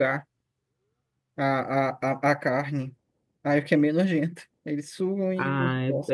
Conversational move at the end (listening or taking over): taking over